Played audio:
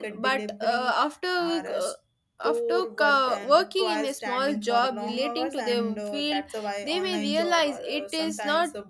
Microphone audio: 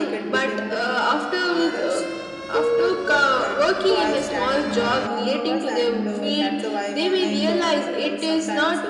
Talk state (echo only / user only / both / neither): echo only